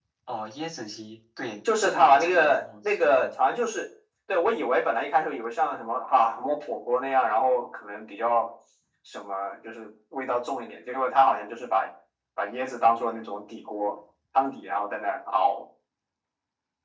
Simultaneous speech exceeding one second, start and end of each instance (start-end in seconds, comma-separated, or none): 1.8-3.3